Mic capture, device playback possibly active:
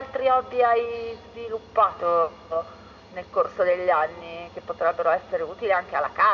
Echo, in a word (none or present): present